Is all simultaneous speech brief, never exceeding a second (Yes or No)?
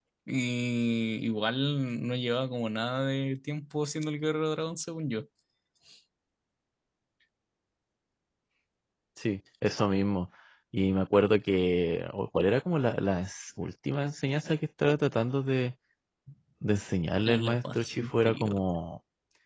No